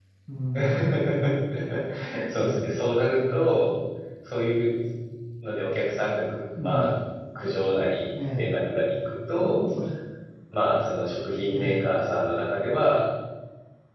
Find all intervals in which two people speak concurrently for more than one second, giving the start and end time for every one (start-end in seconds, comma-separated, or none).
none